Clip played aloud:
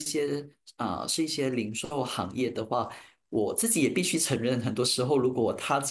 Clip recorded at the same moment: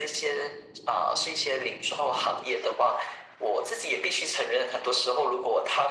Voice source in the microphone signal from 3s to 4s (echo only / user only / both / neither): echo only